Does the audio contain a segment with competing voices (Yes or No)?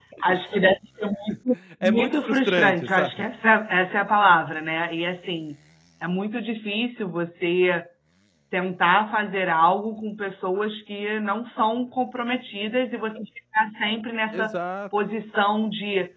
Yes